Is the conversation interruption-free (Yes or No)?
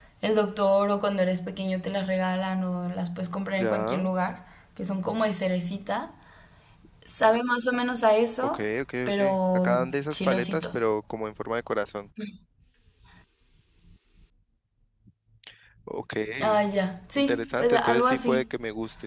No